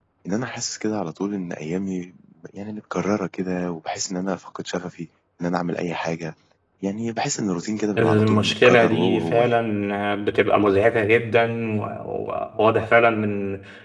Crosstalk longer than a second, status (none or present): present